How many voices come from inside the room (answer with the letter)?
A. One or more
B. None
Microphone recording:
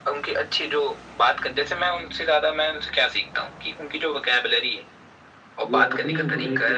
A